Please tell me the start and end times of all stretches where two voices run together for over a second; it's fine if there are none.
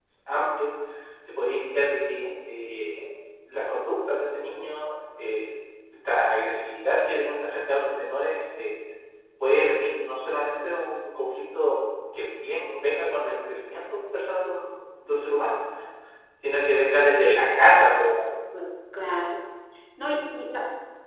none

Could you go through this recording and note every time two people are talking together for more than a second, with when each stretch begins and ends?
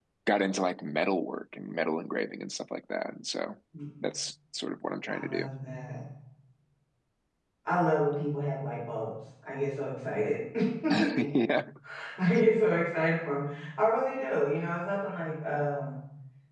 none

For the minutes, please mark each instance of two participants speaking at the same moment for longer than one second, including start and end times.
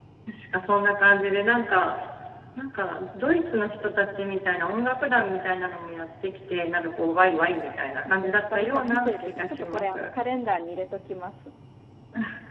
8.1-10.1

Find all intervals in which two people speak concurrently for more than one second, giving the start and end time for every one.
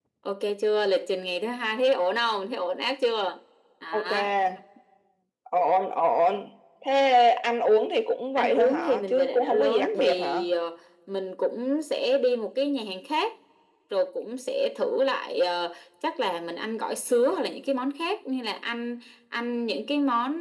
8.4-10.4

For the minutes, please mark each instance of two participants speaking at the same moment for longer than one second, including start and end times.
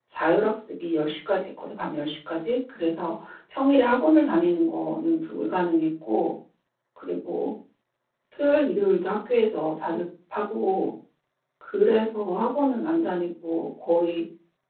none

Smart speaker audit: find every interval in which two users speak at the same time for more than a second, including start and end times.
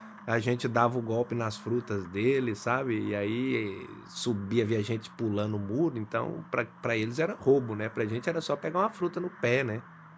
none

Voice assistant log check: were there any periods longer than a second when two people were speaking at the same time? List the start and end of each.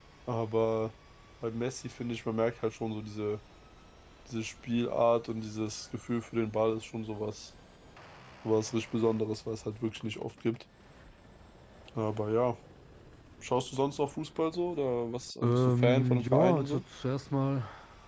15.4-16.8

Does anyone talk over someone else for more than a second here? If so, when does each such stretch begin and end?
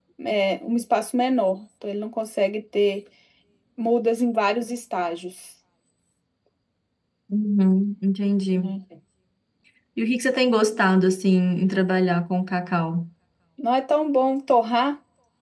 none

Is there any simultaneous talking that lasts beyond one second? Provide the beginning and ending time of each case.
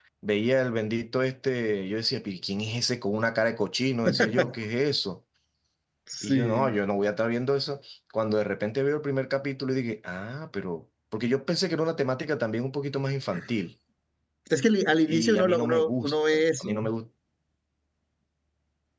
15.1-16.8

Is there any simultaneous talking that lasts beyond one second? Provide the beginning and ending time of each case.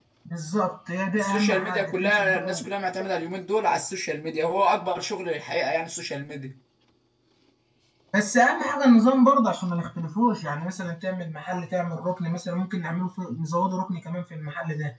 1.1-2.7

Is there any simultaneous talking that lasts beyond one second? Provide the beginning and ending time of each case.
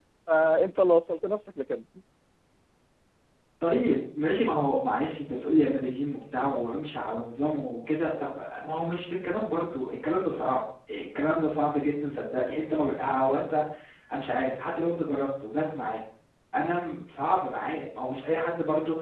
none

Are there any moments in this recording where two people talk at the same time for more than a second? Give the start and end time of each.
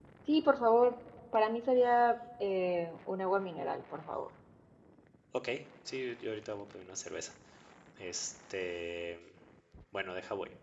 none

